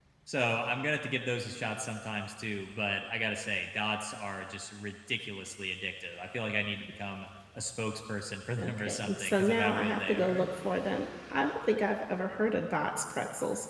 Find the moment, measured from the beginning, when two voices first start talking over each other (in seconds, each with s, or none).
8.6 s